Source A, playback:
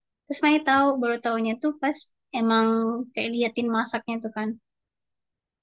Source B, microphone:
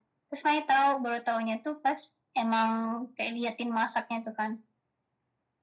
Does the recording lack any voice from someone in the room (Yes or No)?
Yes